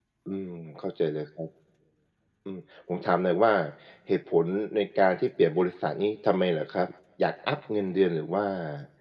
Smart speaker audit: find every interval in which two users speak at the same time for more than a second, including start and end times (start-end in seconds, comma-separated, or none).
none